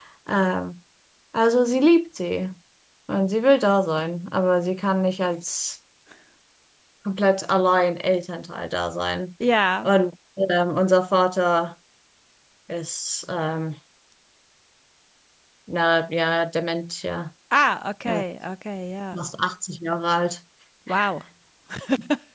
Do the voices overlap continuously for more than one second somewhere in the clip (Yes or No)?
No